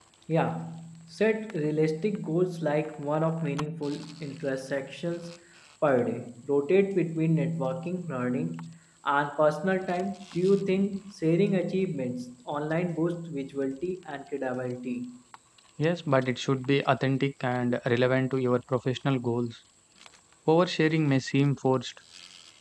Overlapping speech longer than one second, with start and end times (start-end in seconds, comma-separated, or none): none